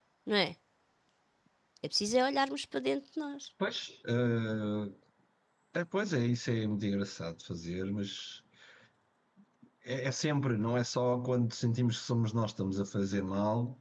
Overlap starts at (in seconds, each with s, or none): none